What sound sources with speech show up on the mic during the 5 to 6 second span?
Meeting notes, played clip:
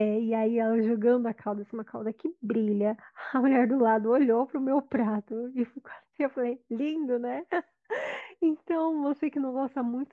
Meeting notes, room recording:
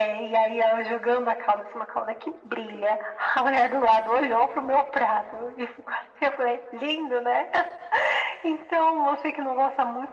echo only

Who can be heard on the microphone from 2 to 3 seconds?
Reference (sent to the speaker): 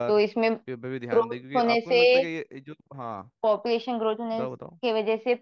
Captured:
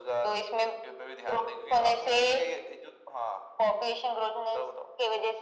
echo only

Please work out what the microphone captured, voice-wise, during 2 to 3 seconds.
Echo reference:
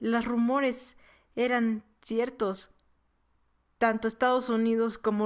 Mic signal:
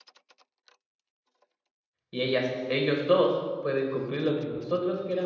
user only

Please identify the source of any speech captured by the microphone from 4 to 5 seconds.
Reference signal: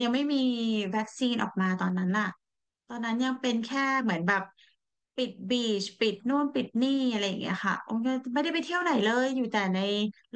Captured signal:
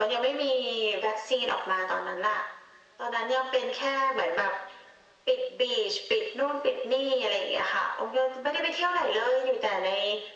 echo only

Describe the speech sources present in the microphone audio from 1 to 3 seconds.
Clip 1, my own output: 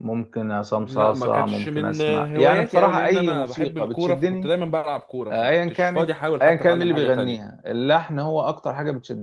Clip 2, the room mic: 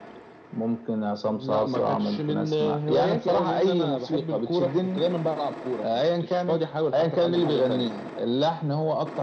echo only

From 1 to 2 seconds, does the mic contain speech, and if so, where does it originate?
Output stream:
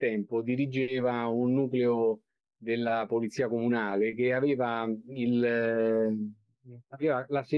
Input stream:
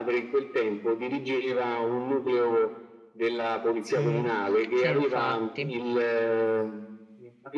echo only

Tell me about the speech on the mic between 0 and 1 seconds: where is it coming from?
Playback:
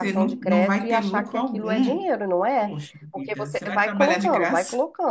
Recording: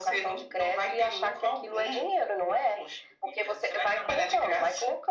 echo only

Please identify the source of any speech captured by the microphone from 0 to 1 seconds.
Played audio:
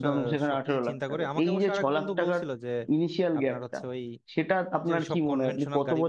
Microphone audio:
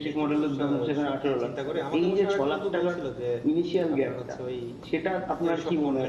echo only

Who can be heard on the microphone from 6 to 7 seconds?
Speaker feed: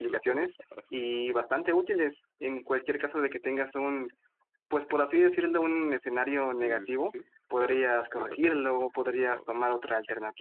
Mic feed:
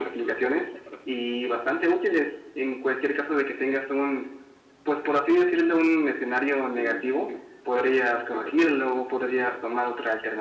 echo only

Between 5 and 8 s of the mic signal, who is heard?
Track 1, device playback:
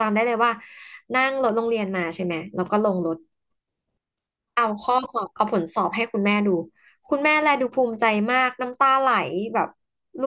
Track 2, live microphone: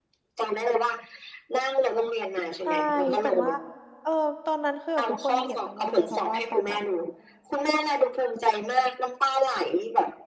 both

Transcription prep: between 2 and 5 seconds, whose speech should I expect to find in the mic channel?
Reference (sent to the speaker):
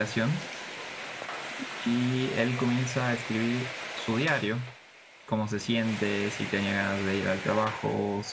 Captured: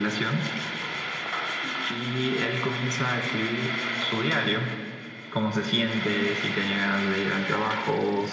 echo only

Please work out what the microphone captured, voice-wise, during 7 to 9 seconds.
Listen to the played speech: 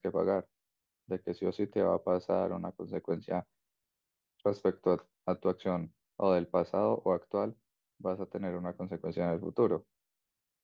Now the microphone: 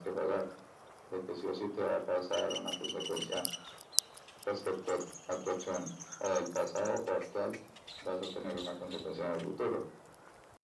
echo only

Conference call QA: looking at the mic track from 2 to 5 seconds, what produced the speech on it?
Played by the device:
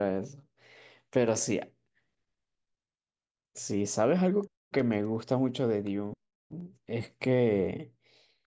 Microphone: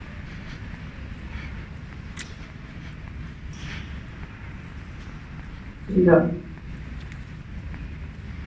neither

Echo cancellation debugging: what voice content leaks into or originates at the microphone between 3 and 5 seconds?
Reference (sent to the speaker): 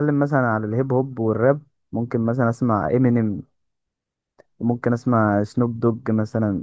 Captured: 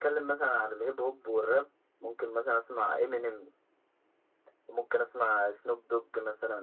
echo only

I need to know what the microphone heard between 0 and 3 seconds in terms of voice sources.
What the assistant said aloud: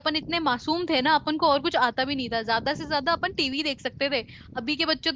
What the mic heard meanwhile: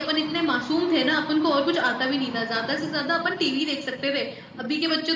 echo only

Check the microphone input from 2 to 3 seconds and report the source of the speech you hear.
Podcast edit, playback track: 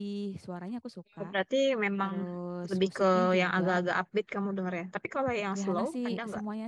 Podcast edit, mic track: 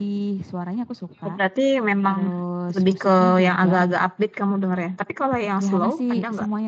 echo only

